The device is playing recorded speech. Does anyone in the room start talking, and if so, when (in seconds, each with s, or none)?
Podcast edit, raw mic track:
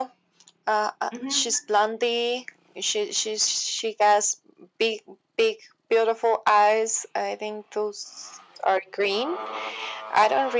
1.1 s